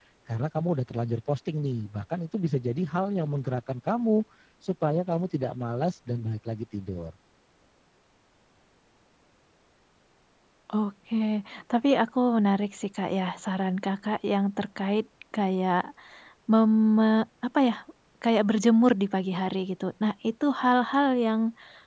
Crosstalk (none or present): none